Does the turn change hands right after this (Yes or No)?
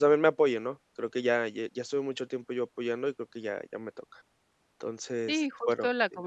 Yes